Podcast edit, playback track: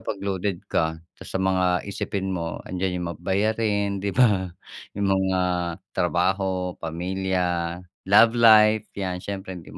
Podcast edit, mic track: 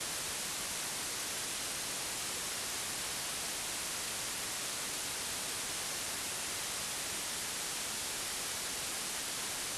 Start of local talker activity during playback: none

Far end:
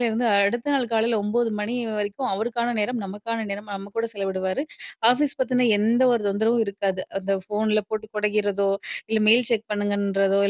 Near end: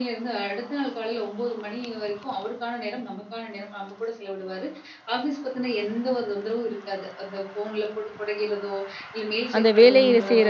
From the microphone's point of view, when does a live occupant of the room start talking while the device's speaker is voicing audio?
9.6 s

